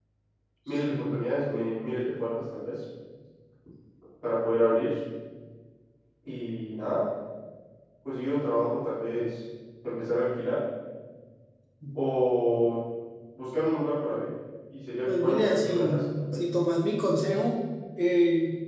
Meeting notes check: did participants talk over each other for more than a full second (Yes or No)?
Yes